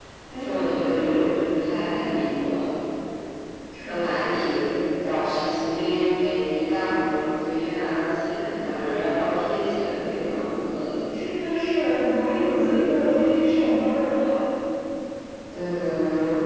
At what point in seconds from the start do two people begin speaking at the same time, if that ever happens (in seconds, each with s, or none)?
none